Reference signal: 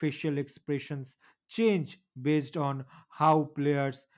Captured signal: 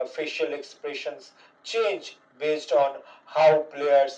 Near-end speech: none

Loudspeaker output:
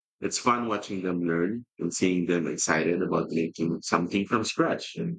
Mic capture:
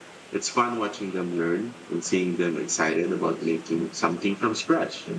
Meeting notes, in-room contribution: none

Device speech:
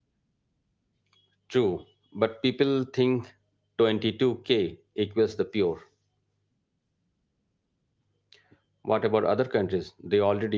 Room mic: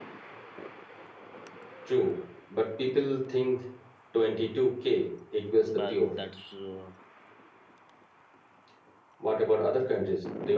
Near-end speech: present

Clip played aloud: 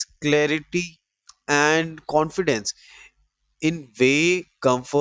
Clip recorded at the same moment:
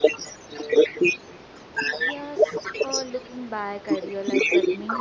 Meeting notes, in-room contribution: present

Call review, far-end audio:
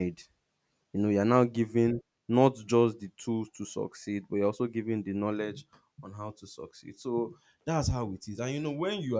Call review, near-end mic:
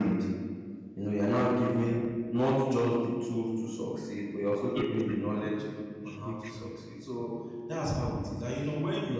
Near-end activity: present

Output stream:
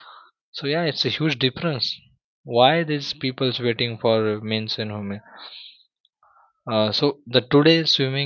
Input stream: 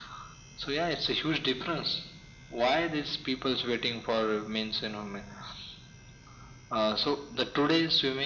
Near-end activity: none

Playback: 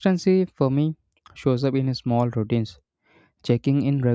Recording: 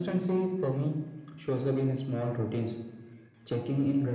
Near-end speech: none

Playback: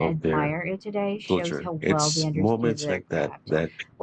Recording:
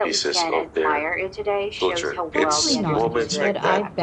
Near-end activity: present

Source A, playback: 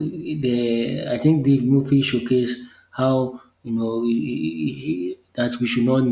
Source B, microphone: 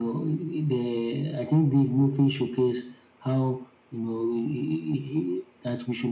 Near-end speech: none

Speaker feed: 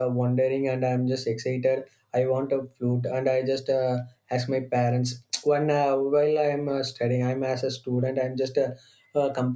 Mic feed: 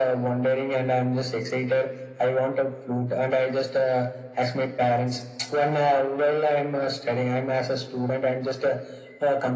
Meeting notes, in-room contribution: none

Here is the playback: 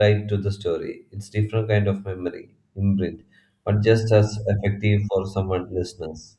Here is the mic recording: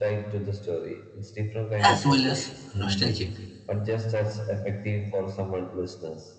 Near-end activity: present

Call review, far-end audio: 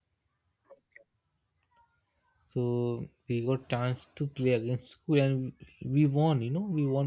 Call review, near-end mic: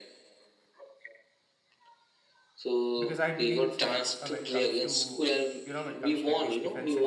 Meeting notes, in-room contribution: present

